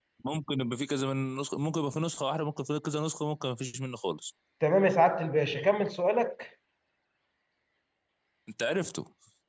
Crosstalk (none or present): none